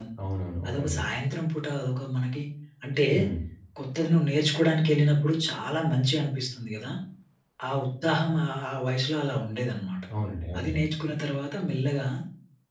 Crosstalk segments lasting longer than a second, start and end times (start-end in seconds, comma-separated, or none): none